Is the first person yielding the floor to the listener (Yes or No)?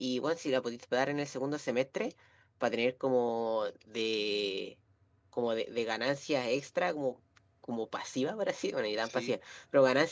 No